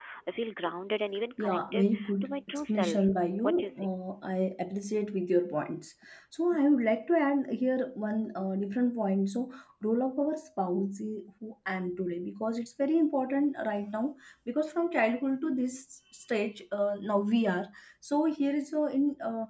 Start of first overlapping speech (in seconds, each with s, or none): 1.4 s